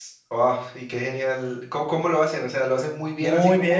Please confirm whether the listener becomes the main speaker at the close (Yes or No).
Yes